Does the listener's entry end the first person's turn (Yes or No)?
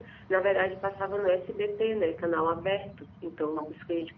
No